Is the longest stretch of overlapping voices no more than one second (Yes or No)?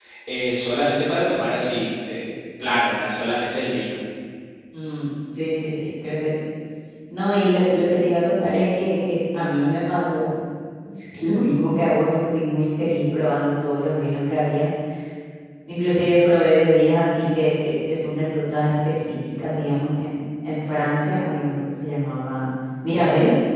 Yes